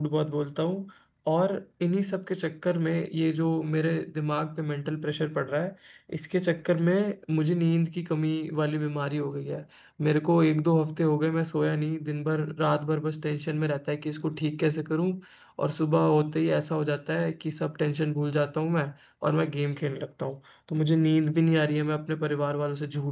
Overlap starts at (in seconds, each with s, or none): none